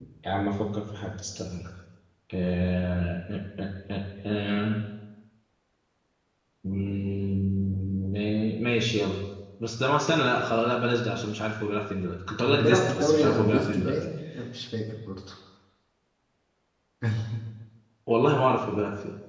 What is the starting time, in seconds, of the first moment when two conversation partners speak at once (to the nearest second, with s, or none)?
12 s